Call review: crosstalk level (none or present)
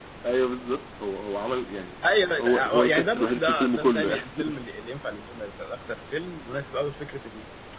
present